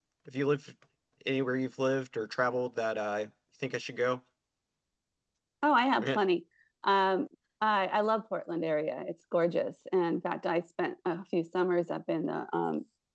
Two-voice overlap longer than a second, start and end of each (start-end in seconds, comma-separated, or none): none